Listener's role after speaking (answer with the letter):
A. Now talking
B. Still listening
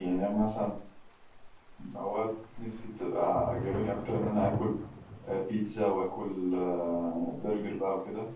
B